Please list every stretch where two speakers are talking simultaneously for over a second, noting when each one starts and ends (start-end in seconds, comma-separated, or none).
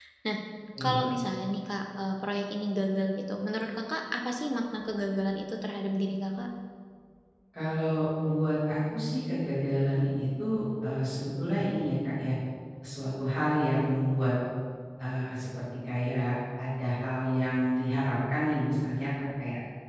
none